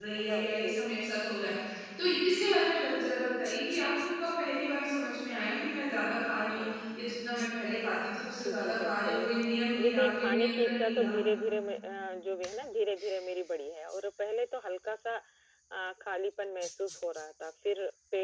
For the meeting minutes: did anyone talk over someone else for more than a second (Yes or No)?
Yes